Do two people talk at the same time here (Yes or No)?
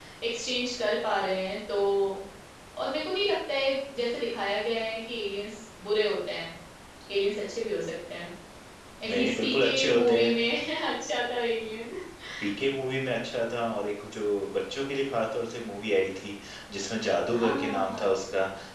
Yes